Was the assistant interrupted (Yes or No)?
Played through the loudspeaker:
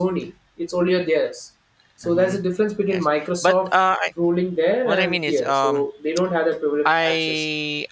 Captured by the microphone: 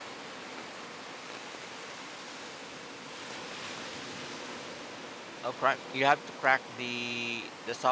Yes